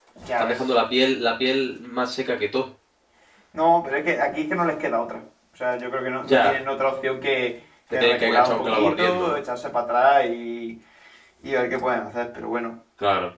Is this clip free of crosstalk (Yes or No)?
No